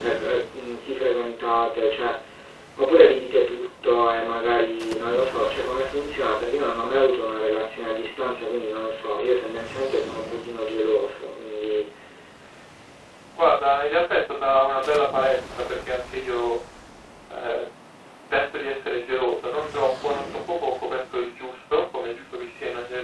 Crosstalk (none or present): none